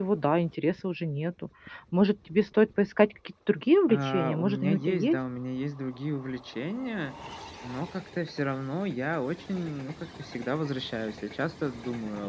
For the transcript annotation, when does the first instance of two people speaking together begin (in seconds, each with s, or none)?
3.9 s